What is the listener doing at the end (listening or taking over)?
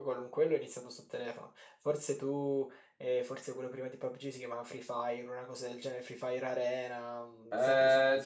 taking over